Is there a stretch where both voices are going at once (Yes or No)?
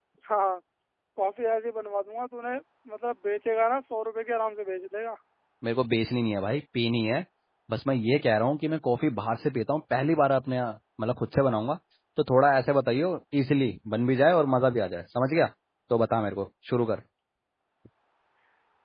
No